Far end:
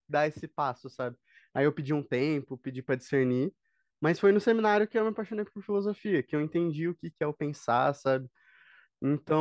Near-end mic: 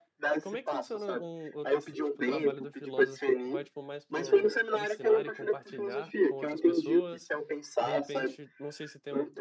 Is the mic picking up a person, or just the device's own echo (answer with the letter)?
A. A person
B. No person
A